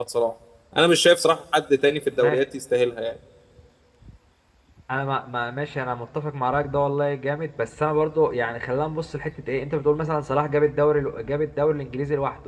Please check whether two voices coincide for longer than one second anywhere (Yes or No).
No